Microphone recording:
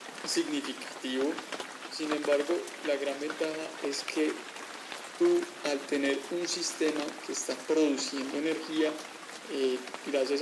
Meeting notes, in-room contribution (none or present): none